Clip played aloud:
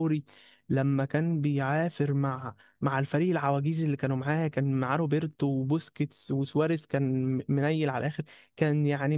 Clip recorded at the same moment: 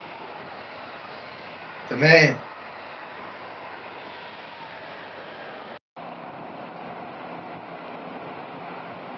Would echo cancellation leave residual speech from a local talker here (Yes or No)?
Yes